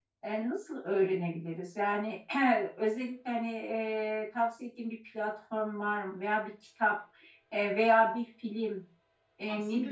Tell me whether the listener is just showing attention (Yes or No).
Yes